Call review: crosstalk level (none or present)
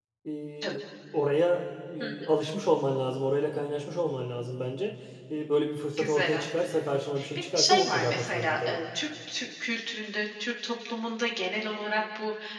present